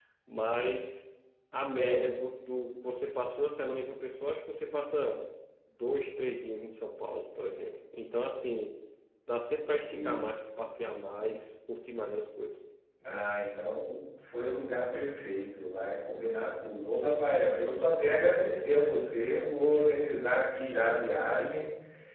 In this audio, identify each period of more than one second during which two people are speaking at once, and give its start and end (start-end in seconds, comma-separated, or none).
none